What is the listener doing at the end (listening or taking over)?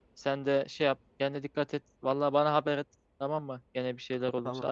taking over